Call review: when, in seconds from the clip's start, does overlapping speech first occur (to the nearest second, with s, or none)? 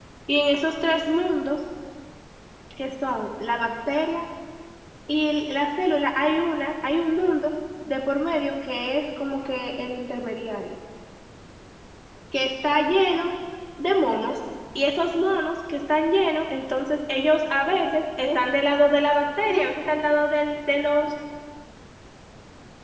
none